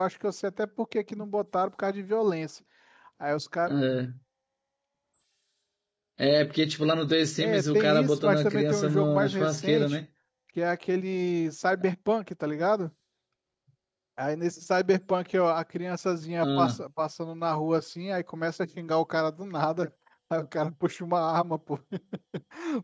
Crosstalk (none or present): present